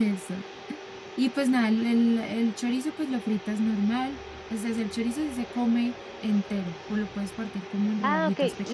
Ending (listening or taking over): taking over